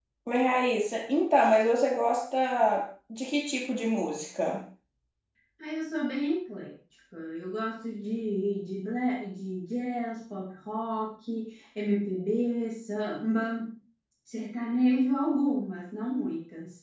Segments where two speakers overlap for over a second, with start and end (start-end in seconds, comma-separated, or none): none